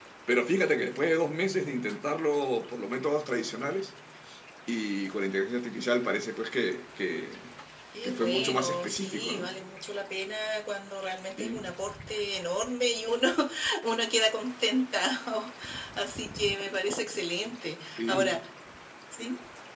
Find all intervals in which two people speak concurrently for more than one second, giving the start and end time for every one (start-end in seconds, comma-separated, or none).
8.0-9.5